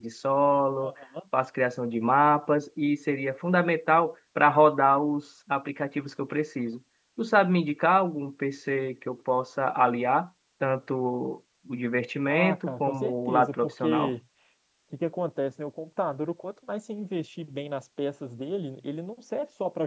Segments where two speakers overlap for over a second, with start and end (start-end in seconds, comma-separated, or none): 12.3-14.1